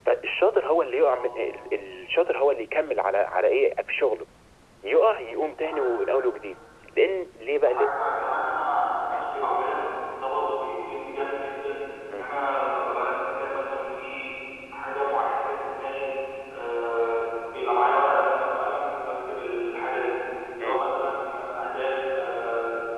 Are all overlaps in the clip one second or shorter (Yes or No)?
Yes